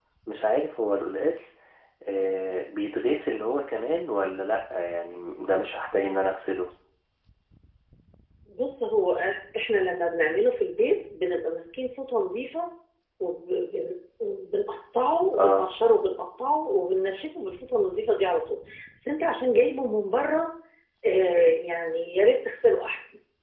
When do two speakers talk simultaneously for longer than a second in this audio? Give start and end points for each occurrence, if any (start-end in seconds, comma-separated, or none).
none